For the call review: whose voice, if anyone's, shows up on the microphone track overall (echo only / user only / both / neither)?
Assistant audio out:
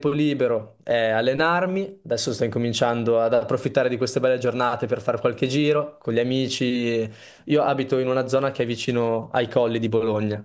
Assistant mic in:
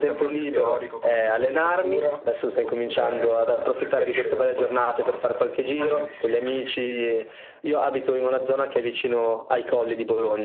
both